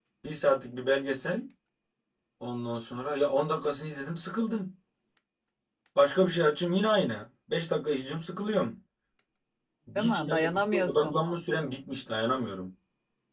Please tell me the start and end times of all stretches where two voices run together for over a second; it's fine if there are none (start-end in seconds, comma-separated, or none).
10.0-11.2